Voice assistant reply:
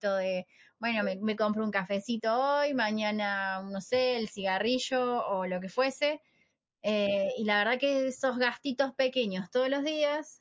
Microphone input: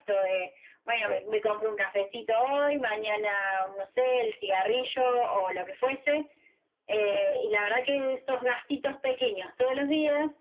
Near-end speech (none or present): none